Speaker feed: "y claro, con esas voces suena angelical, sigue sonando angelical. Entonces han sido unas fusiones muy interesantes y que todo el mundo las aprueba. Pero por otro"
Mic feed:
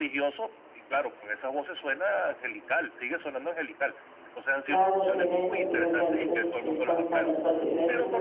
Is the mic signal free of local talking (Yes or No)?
No